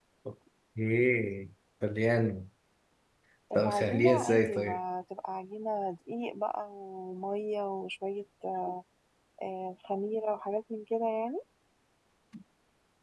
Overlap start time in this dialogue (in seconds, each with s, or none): 3.6 s